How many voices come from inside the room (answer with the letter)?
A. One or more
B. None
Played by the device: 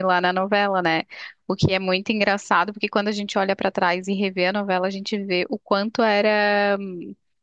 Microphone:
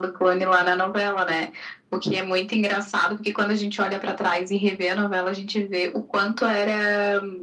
B